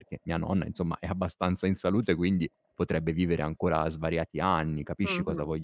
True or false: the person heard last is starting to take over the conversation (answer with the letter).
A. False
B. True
B